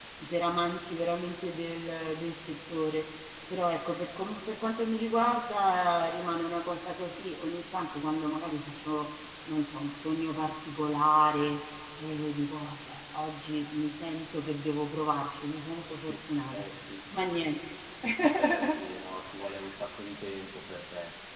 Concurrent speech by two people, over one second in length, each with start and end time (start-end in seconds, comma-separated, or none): none